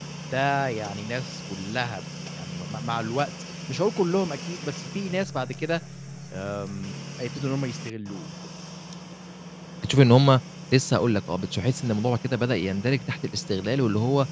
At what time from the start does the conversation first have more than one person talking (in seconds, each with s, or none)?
none